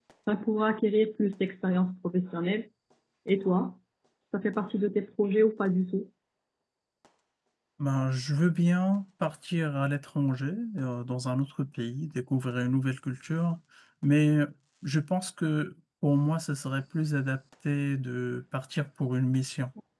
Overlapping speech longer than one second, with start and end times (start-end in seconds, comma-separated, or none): none